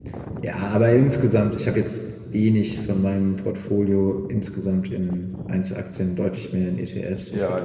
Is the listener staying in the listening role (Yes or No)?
No